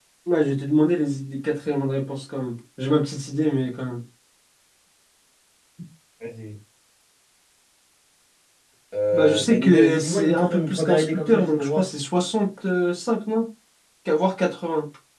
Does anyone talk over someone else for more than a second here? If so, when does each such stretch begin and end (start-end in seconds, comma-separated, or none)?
9.1-11.8